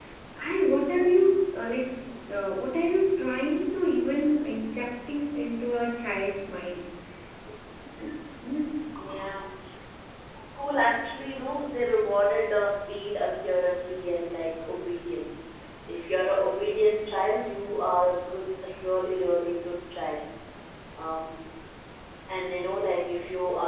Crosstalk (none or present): none